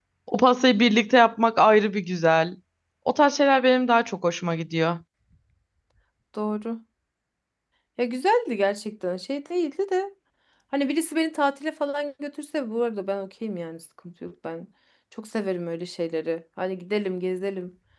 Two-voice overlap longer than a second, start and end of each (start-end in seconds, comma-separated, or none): none